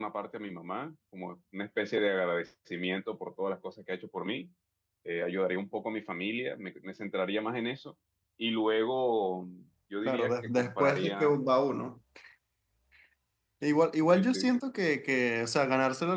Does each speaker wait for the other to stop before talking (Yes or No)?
No